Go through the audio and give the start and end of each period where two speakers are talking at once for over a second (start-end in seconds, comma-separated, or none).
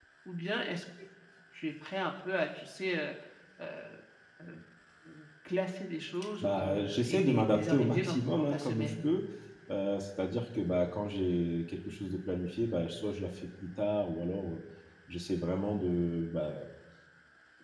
6.4-9.0